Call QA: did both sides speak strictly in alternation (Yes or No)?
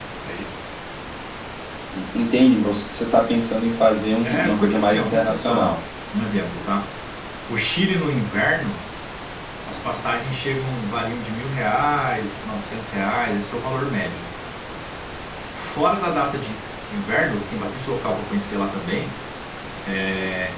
No